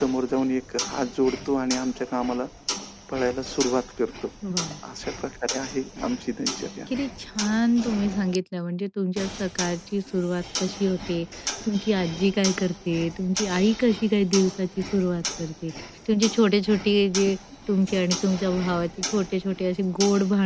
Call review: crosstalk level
none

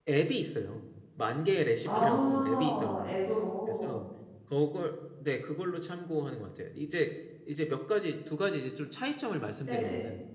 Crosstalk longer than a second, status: present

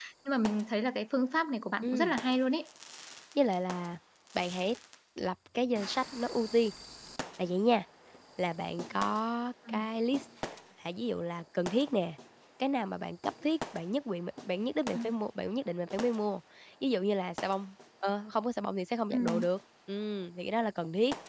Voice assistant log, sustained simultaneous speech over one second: none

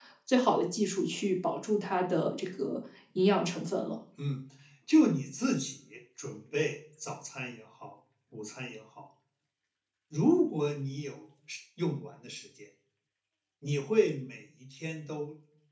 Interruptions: none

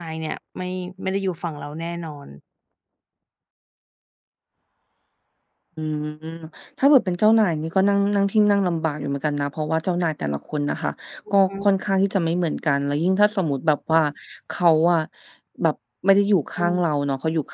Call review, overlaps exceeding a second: none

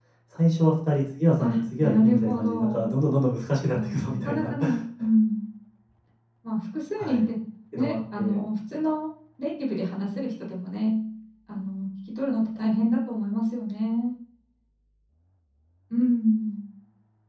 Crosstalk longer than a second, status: present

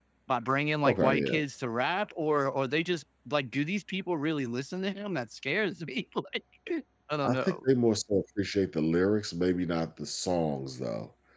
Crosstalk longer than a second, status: none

